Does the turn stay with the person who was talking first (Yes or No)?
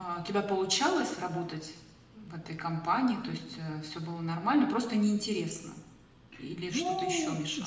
No